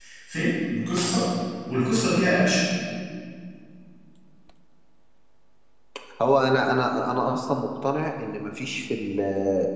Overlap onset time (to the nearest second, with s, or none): none